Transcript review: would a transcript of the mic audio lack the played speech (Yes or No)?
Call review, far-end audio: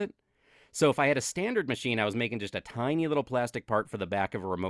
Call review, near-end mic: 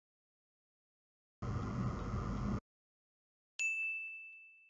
Yes